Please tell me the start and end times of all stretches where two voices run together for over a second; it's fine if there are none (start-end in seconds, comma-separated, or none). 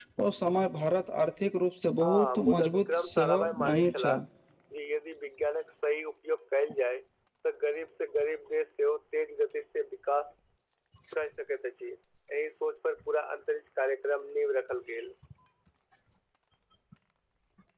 2.0-4.3